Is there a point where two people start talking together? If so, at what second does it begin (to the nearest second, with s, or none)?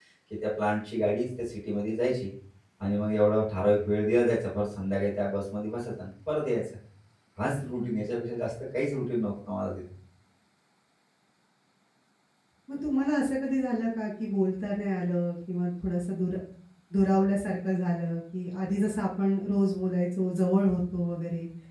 none